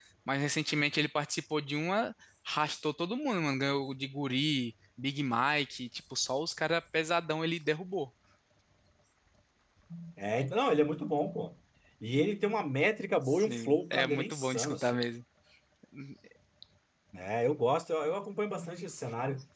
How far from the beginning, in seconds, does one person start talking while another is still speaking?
13 s

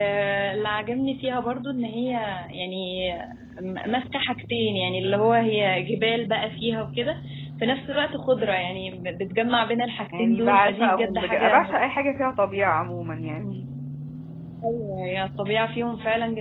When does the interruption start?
10 s

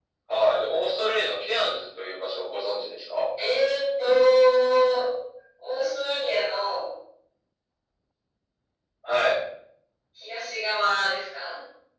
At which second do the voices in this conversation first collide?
none

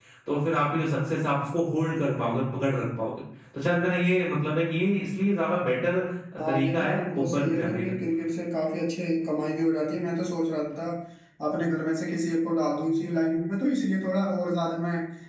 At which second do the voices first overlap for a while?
6 s

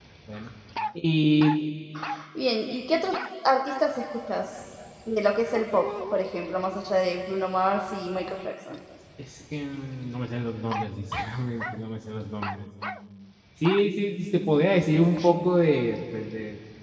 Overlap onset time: none

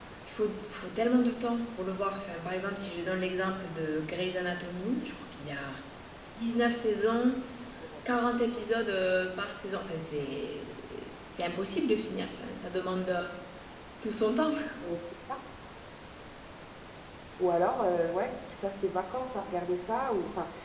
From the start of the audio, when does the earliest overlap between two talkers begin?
none

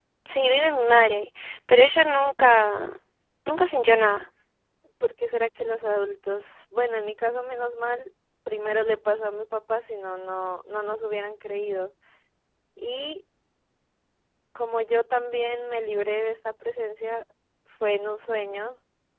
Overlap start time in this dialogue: none

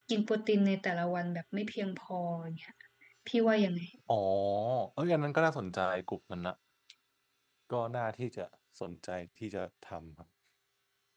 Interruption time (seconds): none

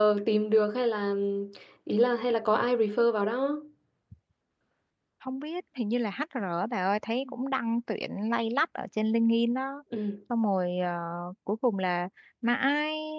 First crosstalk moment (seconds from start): none

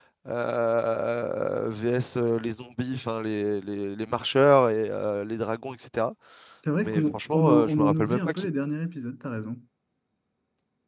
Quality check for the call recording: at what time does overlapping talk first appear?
7 s

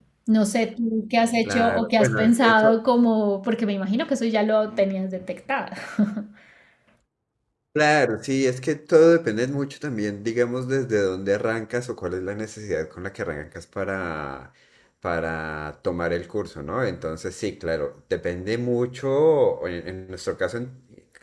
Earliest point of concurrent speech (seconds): 1 s

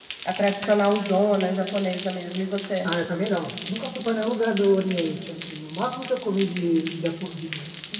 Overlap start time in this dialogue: none

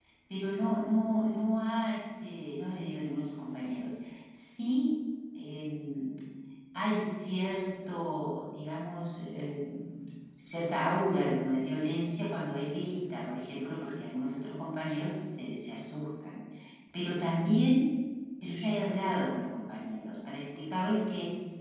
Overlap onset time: none

